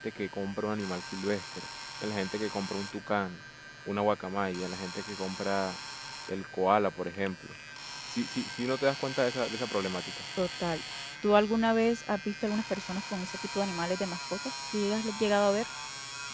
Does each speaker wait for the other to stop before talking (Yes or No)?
Yes